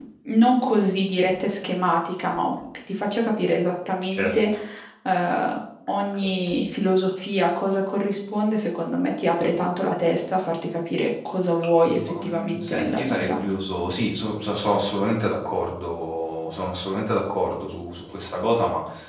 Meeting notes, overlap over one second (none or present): present